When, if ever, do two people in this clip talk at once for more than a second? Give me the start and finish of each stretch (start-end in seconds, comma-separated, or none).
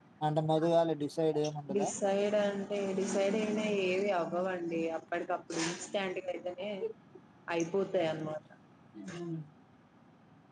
none